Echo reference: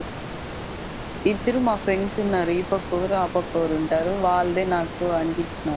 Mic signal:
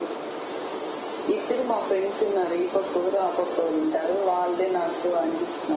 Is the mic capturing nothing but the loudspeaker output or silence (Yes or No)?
Yes